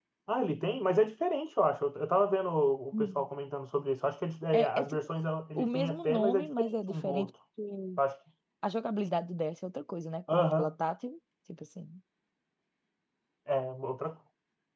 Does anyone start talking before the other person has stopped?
Yes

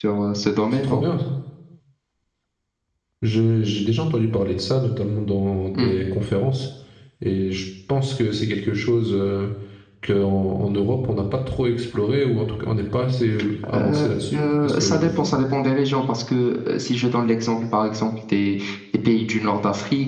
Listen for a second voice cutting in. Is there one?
Yes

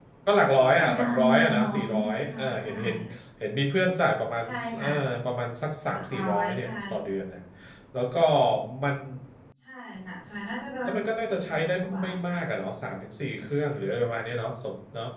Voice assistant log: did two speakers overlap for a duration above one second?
Yes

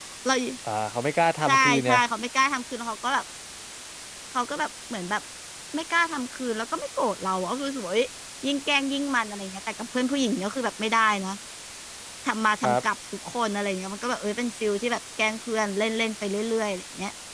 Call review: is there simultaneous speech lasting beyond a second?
No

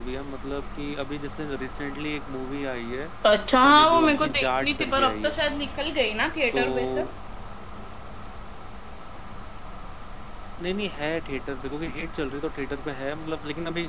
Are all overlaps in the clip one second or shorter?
No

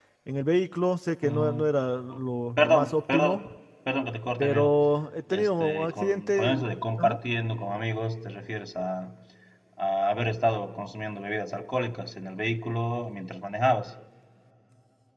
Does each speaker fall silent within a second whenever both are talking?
No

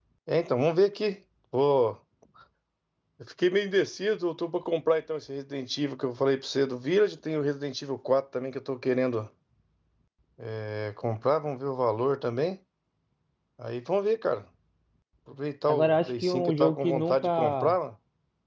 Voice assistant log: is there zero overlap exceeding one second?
No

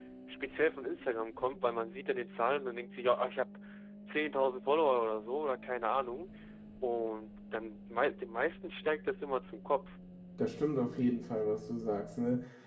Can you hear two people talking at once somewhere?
No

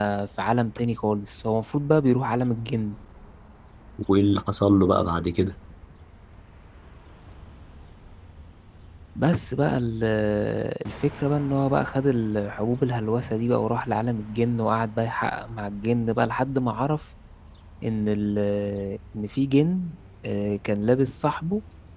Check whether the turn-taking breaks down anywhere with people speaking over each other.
No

